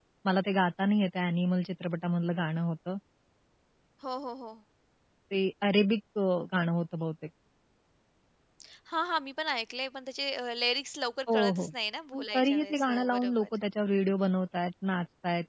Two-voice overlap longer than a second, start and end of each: 12.1-13.5

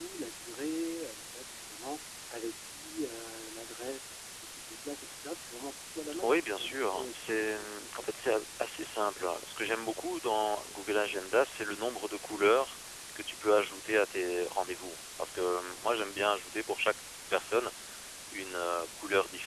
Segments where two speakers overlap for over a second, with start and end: 6.2-8.1

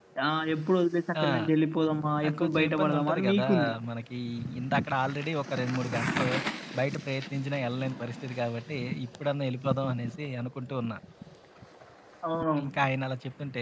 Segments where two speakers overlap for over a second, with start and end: 2.2-3.5

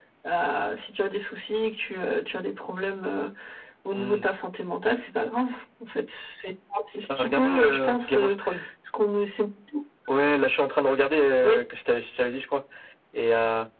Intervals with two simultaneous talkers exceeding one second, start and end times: 7.1-8.4

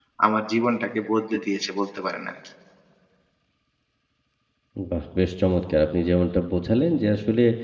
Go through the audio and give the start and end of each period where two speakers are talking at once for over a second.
none

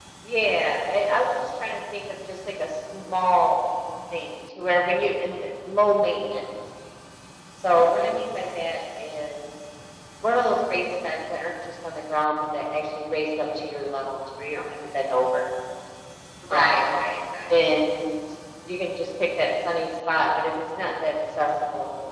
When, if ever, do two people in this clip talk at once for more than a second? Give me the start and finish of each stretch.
none

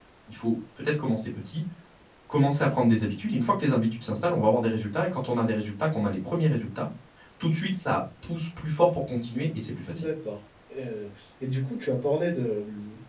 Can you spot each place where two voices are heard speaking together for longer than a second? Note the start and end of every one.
none

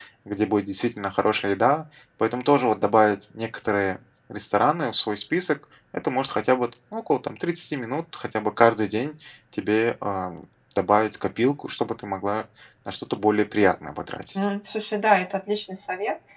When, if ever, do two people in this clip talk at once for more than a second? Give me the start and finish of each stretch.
none

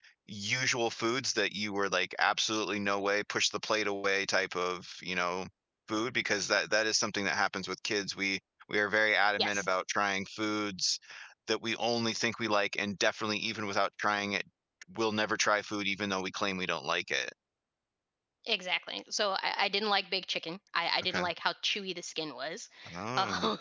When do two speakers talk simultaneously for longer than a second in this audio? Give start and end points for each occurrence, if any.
none

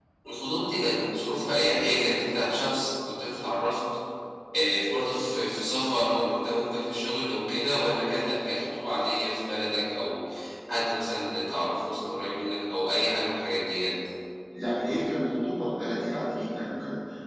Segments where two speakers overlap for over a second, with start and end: none

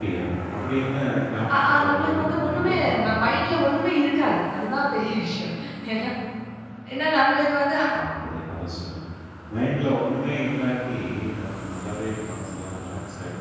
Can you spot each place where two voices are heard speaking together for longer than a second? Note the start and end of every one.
1.6-3.2

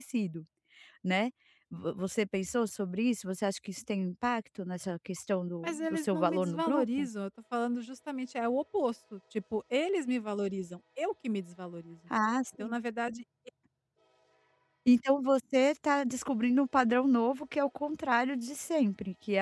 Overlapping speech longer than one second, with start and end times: 5.6-7.1

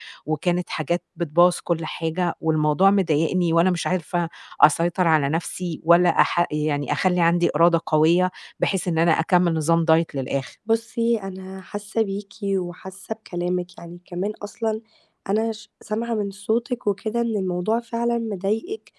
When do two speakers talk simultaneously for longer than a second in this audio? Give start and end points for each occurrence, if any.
none

